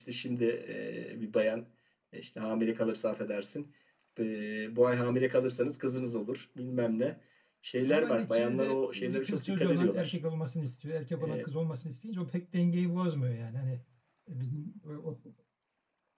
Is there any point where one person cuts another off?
Yes, from 7.9 s

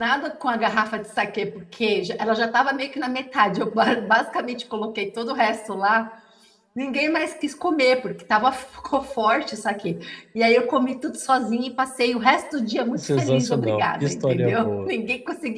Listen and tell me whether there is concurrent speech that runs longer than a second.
Yes, from 12.9 s

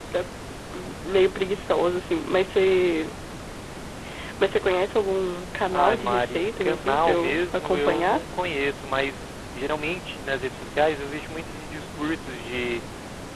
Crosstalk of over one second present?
Yes, from 5.7 s

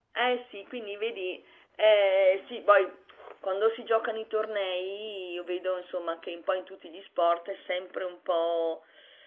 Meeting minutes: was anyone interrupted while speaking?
No

